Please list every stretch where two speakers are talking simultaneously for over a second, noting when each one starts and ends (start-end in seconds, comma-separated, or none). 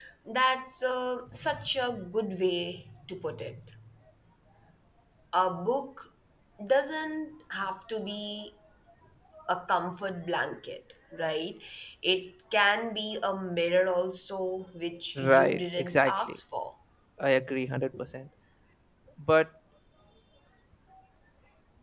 15.2-16.4